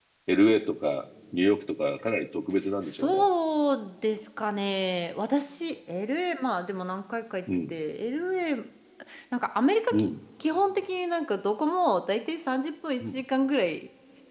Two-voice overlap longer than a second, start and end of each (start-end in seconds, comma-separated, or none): none